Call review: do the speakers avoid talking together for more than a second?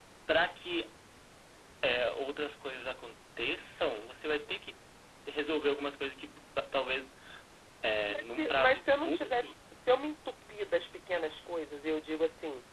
No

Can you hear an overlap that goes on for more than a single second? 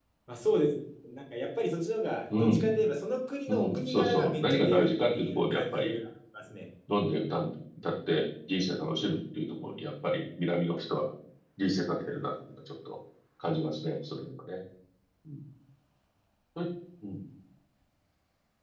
Yes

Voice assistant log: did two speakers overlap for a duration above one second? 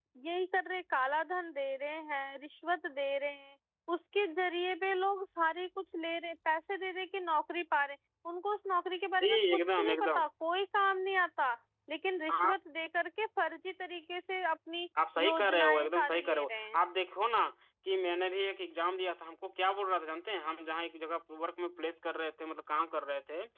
Yes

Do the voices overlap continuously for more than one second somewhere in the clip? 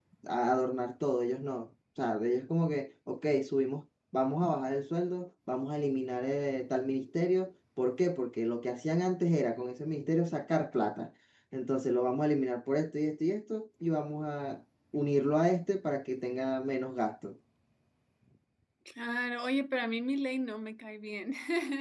No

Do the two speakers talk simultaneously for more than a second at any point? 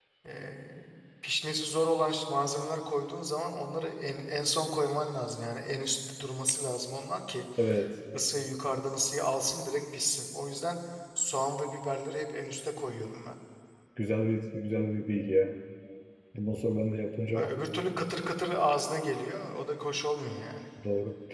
No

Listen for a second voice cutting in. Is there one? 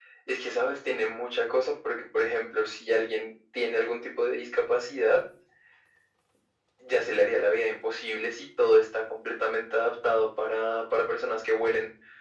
No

